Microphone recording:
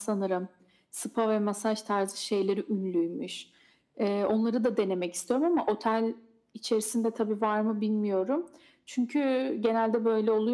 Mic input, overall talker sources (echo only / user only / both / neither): echo only